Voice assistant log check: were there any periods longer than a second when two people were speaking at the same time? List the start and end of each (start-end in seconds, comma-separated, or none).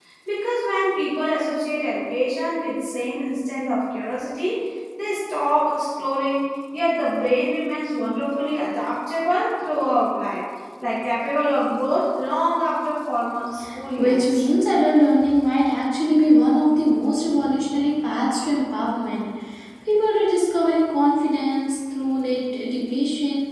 none